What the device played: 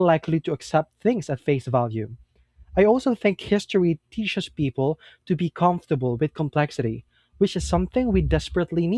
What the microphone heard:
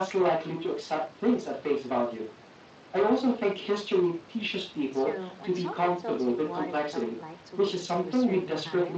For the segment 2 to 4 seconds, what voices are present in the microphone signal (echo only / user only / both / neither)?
echo only